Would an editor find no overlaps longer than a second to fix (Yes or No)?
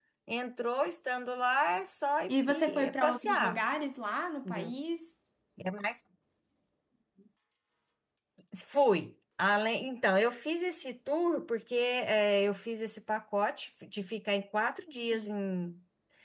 No